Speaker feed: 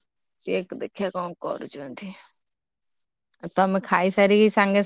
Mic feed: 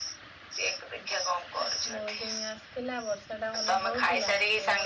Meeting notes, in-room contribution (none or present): present